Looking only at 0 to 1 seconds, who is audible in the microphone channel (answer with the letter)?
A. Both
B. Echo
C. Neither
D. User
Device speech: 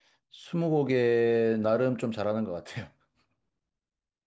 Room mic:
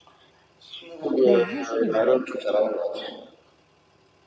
B